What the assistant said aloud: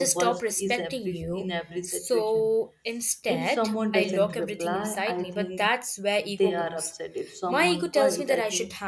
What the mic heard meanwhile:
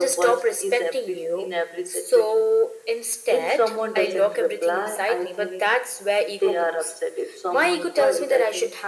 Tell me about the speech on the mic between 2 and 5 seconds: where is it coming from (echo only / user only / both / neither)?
echo only